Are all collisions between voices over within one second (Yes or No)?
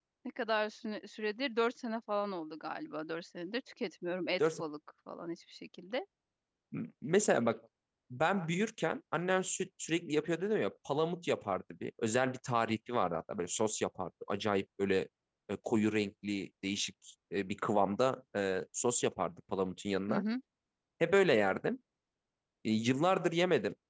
Yes